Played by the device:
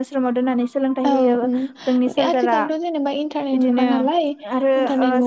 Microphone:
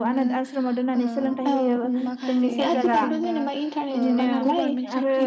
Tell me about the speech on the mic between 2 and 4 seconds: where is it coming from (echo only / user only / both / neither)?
both